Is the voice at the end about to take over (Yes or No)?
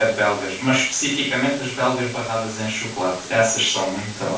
Yes